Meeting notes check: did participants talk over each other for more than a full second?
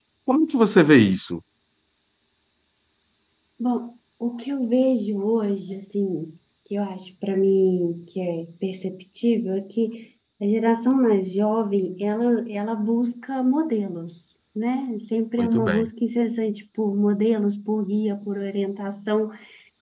No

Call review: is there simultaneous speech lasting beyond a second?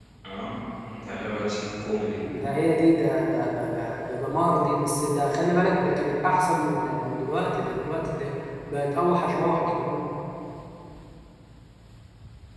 No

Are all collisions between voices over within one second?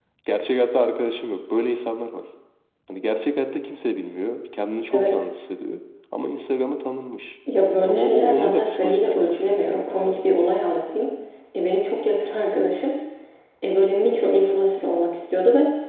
No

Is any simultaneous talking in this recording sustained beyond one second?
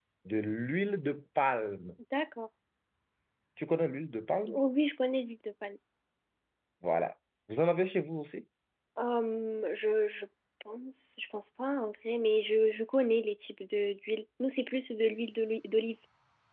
No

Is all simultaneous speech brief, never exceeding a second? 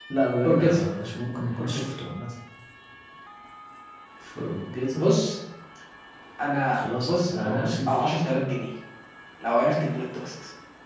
No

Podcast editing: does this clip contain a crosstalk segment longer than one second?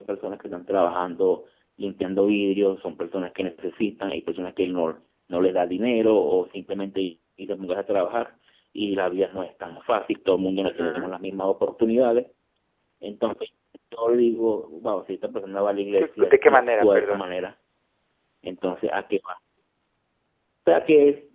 Yes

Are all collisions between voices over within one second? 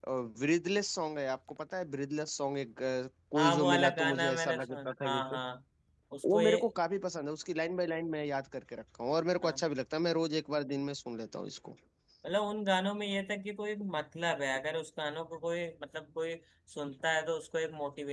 No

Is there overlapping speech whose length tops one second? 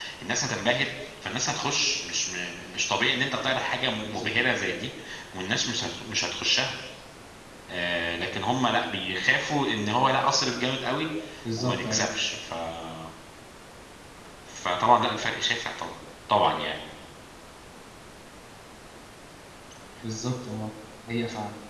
No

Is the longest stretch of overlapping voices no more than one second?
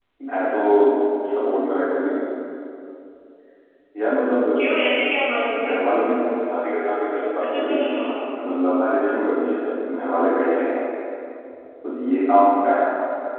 Yes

